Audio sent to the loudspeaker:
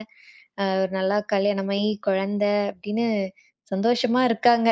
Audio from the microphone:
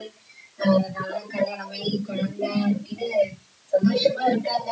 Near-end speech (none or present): none